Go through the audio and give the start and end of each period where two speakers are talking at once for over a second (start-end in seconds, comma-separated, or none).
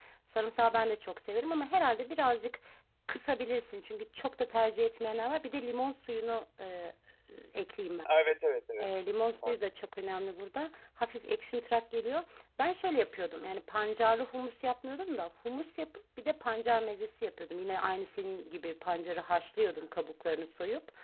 none